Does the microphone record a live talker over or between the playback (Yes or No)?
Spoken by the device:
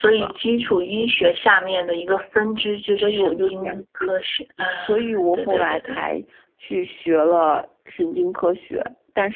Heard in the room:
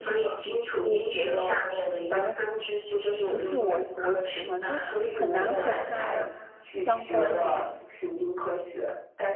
Yes